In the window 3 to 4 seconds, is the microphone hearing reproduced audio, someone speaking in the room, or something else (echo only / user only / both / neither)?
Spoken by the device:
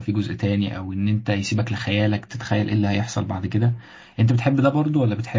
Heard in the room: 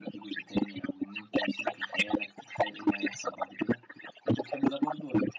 echo only